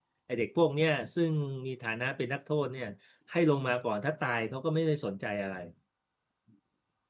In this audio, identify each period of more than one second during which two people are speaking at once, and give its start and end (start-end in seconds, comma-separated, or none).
none